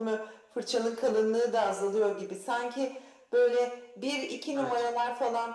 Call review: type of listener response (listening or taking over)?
listening